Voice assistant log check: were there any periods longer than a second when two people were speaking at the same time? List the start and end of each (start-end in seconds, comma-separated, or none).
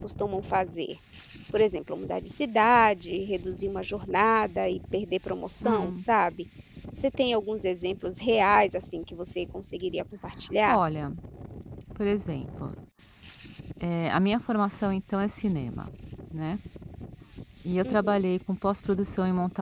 none